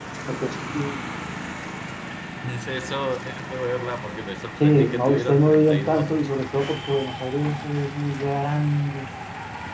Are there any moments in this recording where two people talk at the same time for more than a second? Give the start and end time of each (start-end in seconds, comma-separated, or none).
4.6-6.1